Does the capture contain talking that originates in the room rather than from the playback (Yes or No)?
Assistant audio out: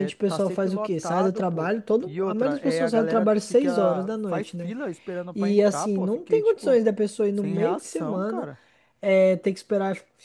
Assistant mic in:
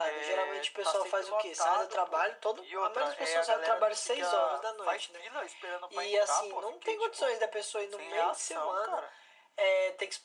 No